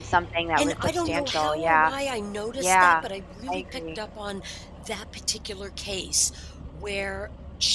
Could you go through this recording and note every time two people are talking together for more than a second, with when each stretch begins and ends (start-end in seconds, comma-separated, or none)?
0.6-1.9